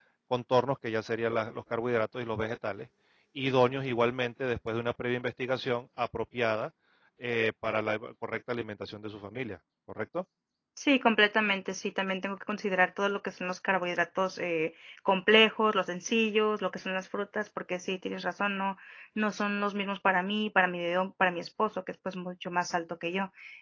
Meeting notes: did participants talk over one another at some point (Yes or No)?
No